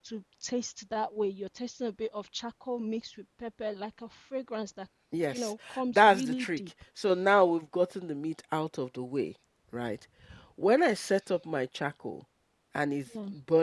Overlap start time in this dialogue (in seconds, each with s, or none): 5.3 s